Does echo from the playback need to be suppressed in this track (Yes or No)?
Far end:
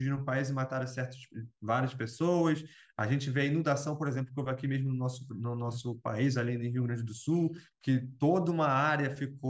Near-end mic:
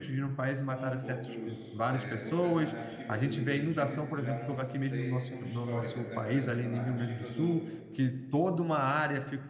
Yes